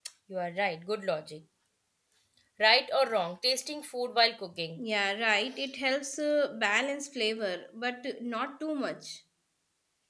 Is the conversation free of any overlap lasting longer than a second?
Yes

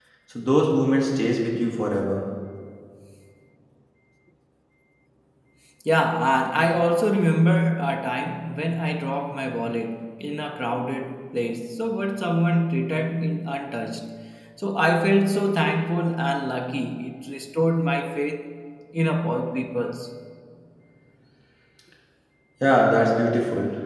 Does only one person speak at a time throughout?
Yes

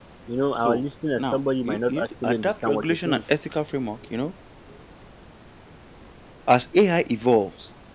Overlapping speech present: Yes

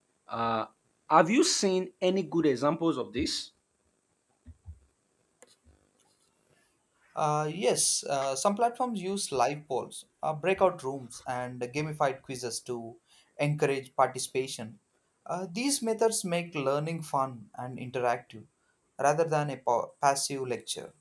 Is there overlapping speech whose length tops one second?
No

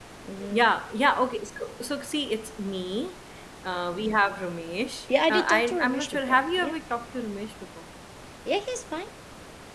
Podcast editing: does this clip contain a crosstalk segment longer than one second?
Yes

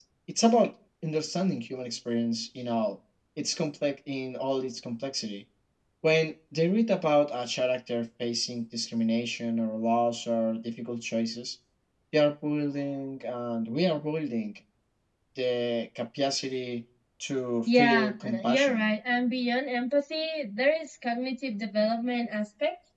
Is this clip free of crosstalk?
No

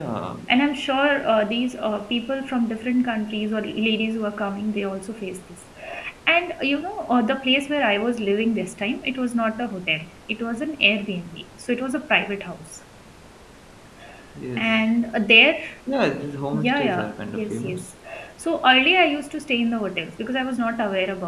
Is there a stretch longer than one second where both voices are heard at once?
Yes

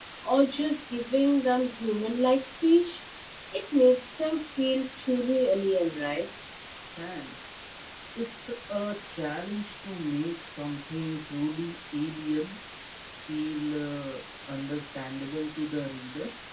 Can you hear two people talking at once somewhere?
No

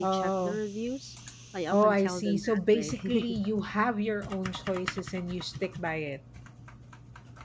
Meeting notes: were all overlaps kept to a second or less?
No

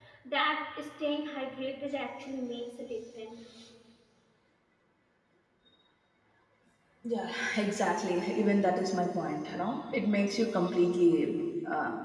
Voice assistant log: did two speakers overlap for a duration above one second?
No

